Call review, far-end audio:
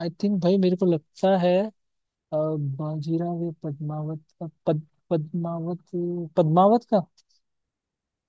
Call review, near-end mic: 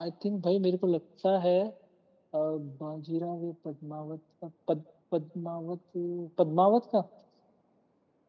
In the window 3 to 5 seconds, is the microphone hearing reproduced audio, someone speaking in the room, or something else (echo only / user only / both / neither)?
echo only